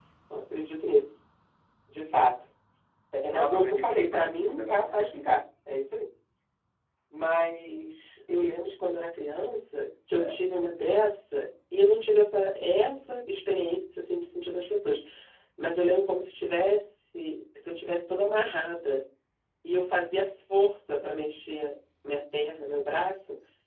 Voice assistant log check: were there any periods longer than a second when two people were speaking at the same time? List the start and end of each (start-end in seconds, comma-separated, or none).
3.3-5.1